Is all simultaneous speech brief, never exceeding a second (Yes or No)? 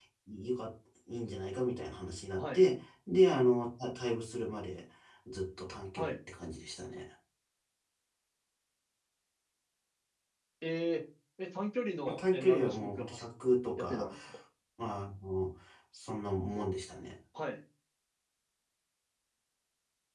No